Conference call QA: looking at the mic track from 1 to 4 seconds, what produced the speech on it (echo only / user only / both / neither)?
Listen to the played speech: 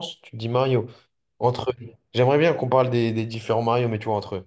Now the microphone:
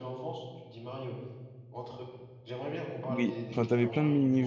both